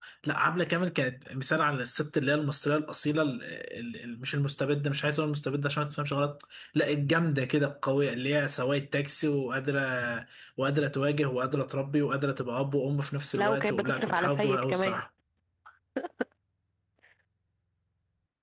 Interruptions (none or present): present